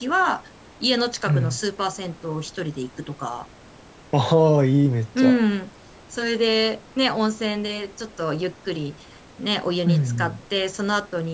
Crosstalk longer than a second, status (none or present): none